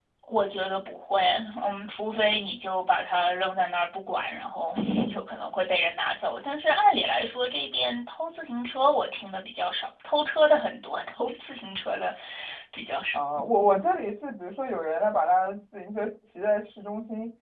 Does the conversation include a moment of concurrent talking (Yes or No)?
No